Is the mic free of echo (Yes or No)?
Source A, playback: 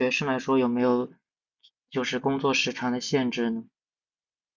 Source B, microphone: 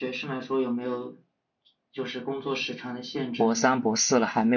No